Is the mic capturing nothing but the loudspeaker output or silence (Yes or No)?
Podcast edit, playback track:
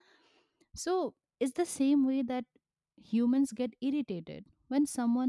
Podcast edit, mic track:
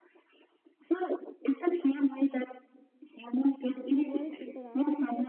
No